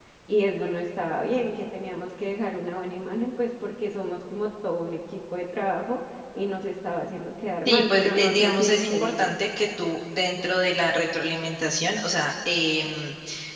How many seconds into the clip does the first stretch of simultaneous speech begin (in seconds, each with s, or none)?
7.6 s